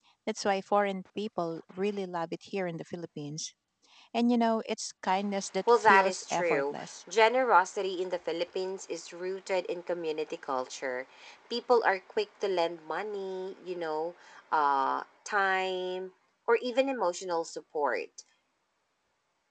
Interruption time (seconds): 5.7 s

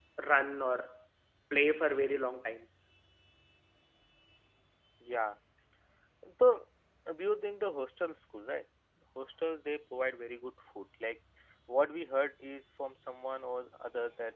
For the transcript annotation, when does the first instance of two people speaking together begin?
none

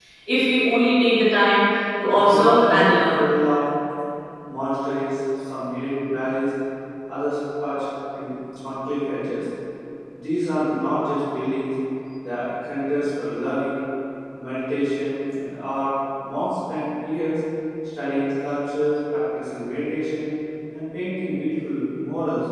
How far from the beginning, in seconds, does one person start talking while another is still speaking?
2.0 s

